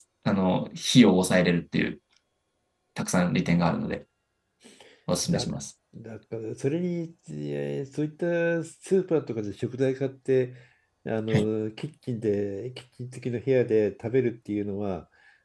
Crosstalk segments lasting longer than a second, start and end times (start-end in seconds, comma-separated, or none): none